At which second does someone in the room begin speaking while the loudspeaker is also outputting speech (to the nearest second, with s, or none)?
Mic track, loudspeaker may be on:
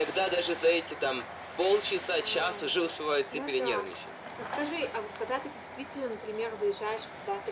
none